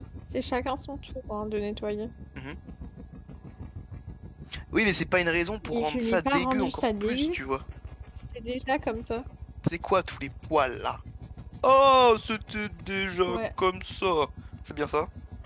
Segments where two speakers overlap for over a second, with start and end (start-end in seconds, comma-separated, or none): 5.6-7.4